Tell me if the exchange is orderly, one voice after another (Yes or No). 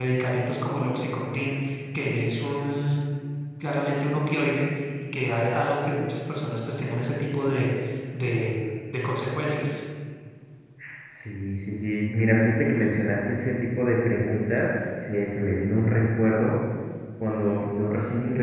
Yes